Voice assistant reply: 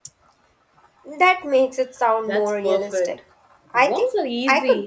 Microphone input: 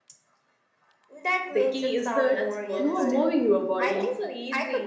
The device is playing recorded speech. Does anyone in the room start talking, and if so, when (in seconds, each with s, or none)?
1.5 s